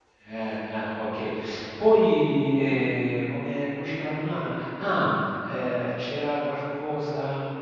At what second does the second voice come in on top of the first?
none

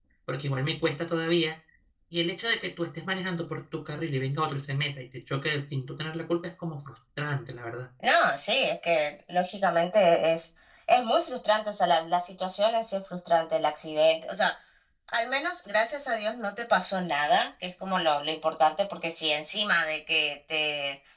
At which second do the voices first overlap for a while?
none

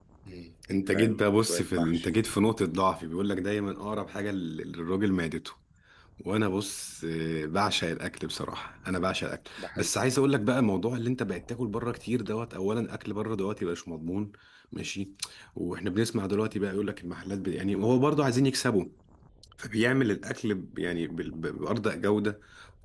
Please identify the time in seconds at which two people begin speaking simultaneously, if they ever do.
0.9 s

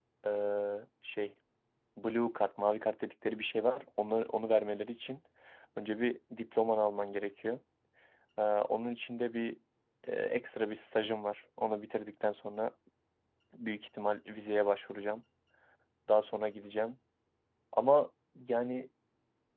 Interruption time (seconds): none

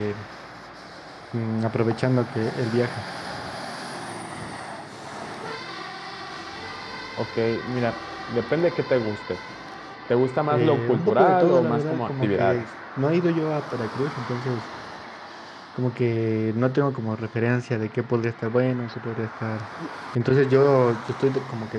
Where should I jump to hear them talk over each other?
10.5 s

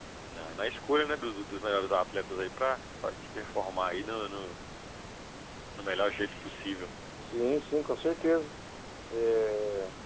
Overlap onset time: none

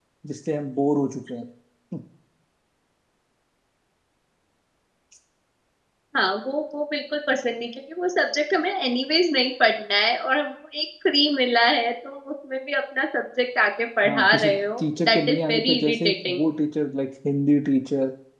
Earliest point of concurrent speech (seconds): 14.0 s

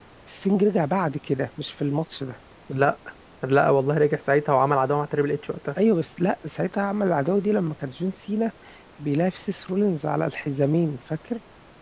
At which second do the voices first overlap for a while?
none

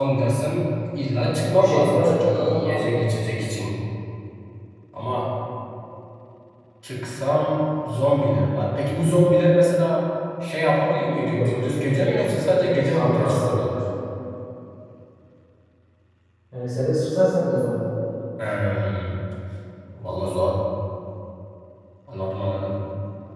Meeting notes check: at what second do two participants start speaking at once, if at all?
1.3 s

